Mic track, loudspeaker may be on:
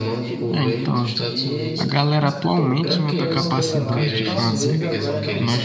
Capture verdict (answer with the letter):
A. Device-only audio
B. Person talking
B